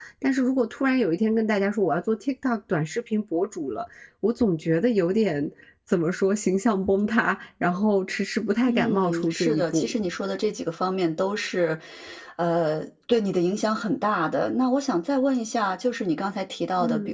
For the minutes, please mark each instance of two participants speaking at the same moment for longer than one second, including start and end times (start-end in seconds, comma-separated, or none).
8.7-9.9